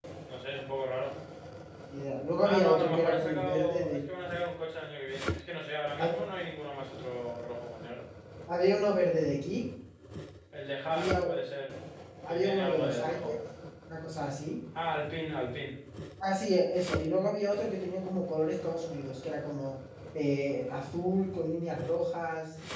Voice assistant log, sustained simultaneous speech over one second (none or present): present